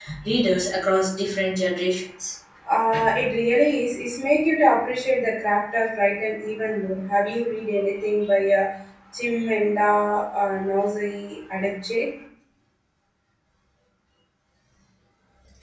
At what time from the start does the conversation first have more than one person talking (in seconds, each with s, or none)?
none